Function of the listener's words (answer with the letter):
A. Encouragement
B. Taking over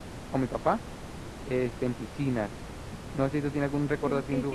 A